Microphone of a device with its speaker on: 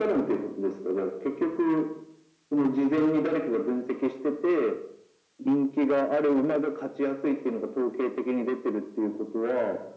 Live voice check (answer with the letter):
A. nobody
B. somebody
A